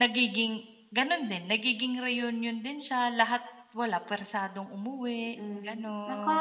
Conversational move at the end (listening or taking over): taking over